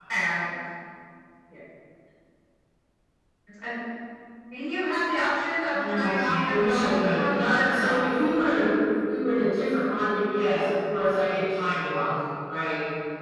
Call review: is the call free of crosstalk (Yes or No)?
No